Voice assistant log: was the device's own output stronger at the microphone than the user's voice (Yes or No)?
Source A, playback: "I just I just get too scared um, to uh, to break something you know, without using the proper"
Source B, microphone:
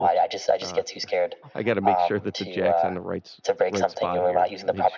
Yes